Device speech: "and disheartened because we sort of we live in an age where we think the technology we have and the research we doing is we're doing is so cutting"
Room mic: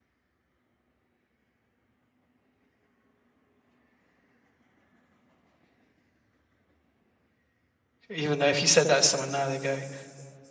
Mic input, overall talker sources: user only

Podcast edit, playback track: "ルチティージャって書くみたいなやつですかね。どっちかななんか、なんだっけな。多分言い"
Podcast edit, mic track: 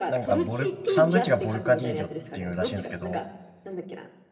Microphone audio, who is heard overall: both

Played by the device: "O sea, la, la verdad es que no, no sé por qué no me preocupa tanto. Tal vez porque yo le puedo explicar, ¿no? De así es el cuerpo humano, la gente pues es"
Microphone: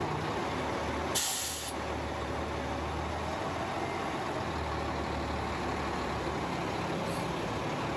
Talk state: neither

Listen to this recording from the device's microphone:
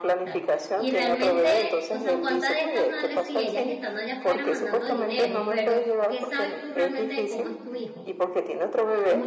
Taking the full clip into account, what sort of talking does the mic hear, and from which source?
both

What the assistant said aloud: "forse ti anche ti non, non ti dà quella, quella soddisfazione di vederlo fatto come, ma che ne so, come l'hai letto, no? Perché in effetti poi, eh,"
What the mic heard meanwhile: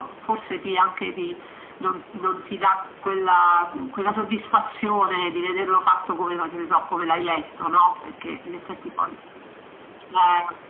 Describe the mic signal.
echo only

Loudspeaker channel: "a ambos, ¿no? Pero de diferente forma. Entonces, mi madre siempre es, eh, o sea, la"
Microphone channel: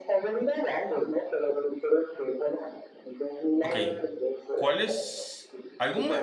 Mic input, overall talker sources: both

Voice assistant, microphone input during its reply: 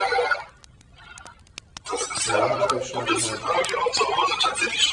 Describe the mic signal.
both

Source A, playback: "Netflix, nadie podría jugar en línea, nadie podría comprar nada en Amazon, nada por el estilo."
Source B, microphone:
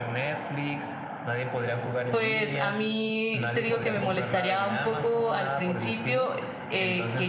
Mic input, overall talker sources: both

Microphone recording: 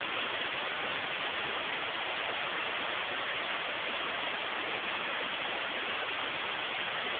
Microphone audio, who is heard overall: neither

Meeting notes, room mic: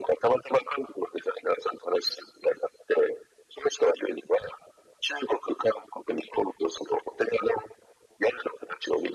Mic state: echo only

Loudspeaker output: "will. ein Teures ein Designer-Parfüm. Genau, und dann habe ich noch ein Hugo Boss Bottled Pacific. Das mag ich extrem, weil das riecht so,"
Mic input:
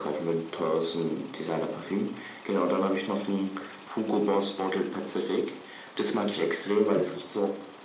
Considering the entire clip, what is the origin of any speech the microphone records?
echo only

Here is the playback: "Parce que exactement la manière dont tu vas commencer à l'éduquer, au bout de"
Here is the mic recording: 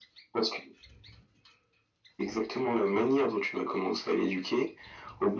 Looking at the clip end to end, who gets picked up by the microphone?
echo only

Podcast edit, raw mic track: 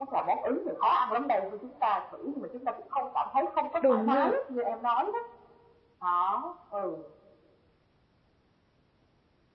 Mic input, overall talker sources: both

